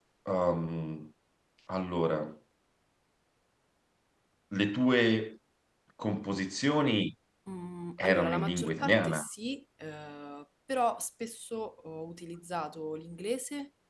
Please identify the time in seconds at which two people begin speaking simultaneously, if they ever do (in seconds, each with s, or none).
8.0 s